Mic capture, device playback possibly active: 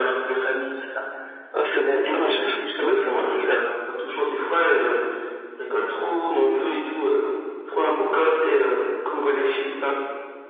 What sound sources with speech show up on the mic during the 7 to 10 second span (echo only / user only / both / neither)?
echo only